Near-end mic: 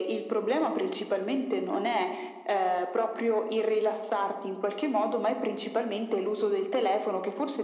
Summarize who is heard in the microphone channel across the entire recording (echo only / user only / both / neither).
echo only